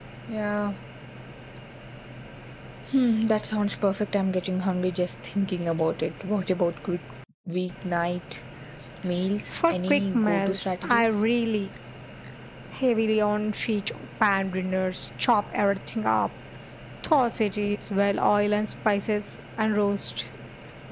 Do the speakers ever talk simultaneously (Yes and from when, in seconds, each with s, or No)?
Yes, from 9.5 s